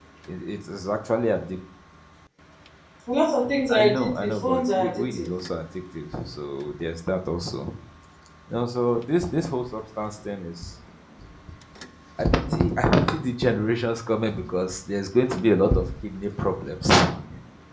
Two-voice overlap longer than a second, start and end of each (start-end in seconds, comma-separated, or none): 3.8-5.3